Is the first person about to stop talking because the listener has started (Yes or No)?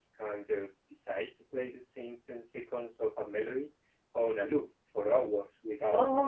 Yes